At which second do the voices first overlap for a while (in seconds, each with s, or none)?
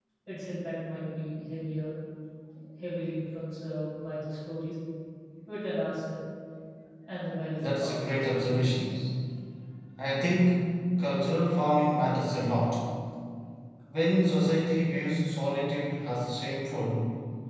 7.6 s